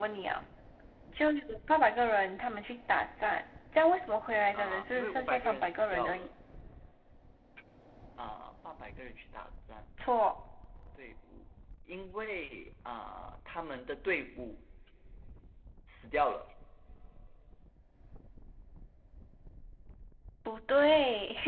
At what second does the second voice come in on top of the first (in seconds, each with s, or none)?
4.5 s